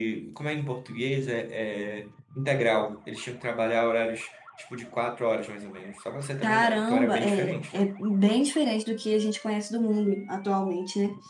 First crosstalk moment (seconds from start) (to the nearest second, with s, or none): 6 s